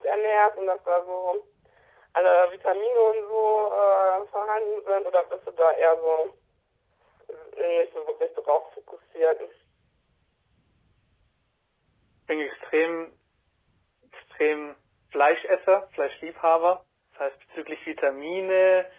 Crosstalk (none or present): none